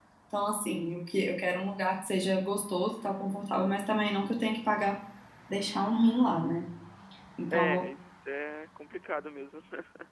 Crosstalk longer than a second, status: none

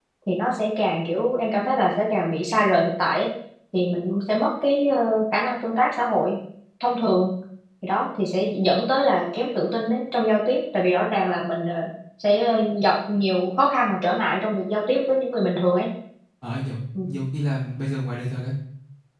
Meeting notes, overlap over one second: none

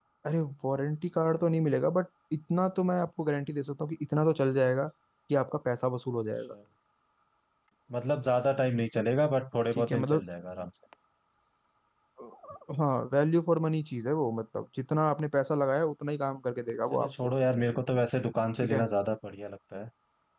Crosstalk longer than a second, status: none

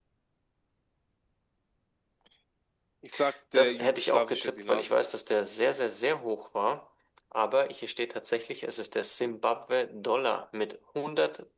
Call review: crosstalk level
present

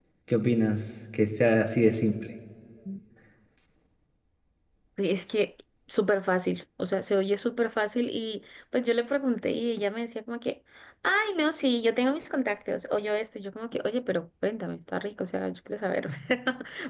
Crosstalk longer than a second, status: none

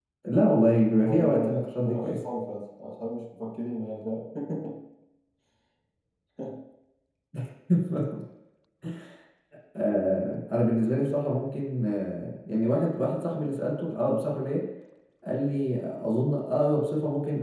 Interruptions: present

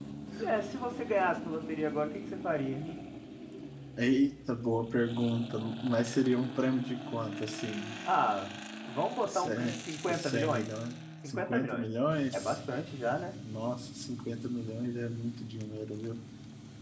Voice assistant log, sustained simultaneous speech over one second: present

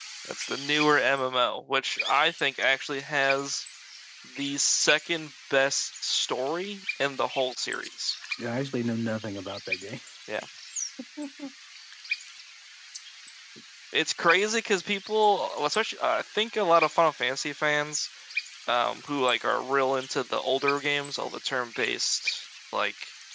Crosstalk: none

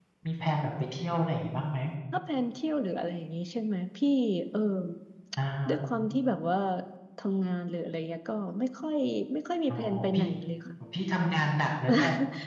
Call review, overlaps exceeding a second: none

